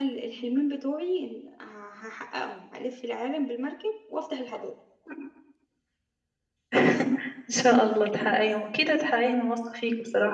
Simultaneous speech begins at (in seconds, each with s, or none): none